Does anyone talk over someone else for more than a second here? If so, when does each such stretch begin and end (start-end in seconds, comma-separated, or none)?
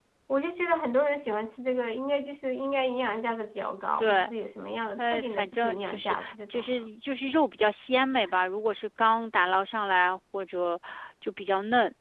5.0-6.9